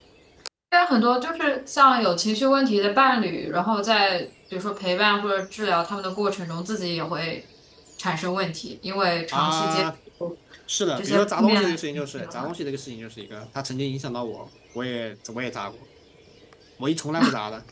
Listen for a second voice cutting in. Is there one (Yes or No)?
Yes